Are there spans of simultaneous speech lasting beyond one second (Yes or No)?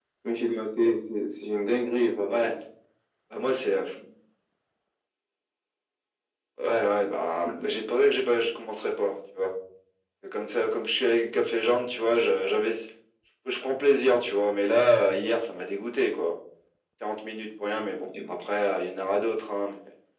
No